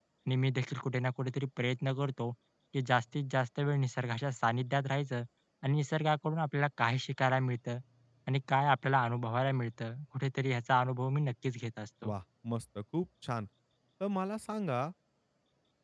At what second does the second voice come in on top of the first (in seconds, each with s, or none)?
none